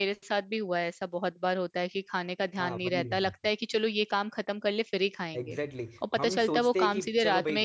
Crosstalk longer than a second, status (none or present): present